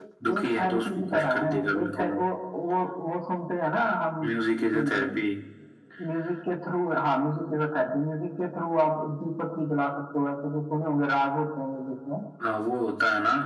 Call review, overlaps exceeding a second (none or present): present